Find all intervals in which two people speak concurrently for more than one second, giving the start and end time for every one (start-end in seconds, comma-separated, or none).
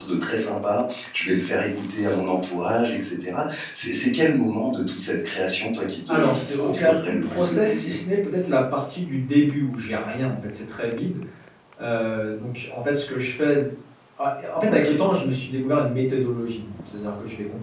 6.1-7.9